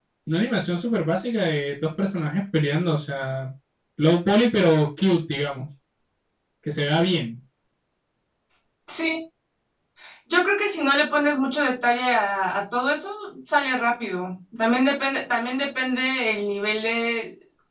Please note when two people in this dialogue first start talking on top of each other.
none

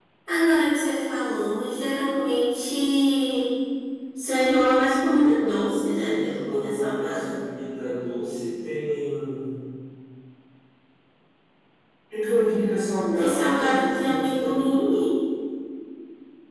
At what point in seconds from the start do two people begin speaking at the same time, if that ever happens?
6 s

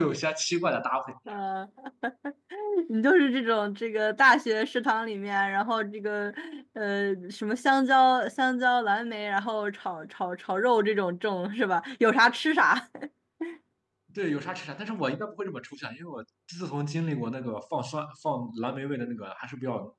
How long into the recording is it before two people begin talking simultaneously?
none

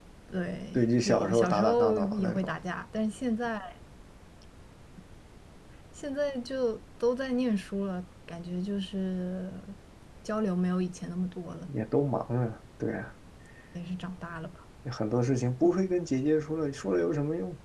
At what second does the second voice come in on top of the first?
1 s

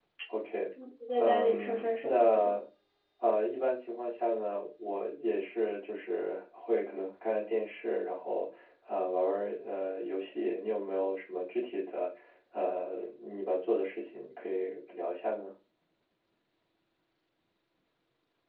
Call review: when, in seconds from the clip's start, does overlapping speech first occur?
1 s

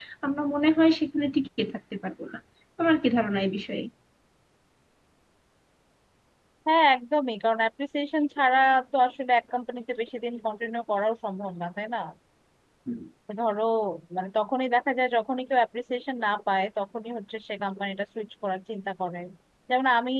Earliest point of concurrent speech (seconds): none

